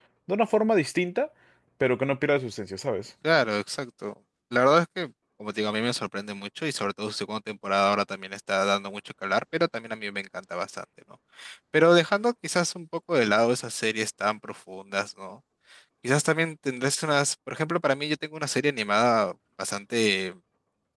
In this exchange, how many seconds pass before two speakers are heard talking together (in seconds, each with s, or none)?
none